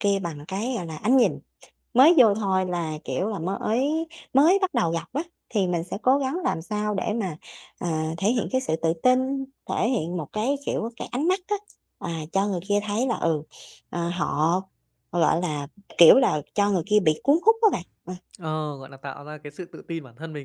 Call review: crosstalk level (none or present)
none